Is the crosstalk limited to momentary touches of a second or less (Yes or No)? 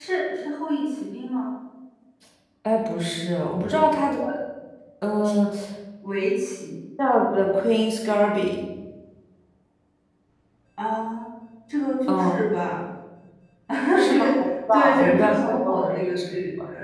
No